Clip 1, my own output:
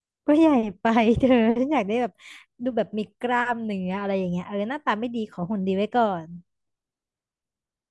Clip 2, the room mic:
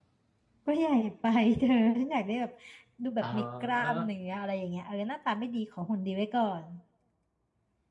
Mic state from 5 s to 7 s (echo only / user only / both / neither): echo only